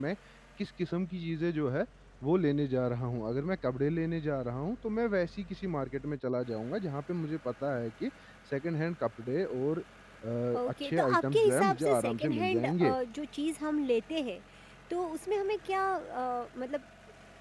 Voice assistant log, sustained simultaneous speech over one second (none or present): present